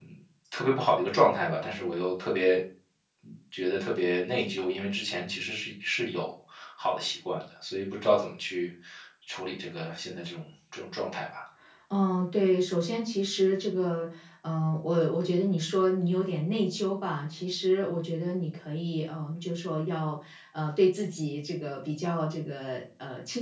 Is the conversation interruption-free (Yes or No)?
Yes